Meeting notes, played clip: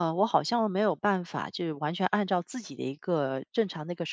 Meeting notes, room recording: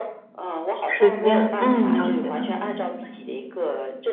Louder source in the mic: user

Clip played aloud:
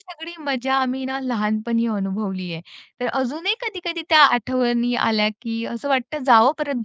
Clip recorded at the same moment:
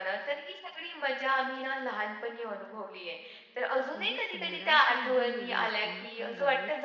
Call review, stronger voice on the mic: echo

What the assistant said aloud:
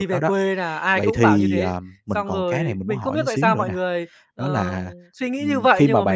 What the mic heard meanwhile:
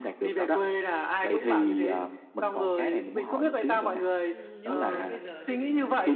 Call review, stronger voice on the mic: echo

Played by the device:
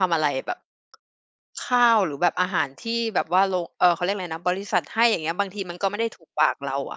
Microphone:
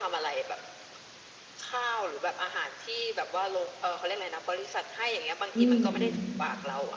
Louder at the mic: user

